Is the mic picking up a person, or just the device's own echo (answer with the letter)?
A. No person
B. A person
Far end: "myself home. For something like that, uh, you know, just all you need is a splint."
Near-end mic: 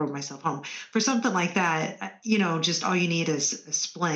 A